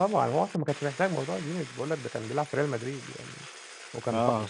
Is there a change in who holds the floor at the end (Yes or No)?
No